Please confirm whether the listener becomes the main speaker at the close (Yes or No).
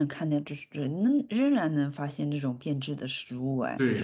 Yes